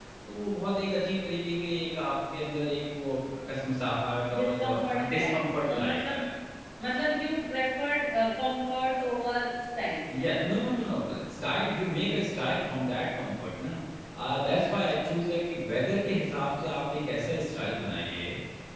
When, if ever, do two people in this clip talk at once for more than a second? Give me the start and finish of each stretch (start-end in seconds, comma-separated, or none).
4.3-6.2